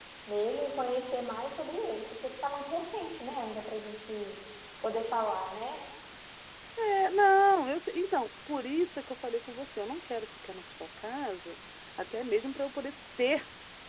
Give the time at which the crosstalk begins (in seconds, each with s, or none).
none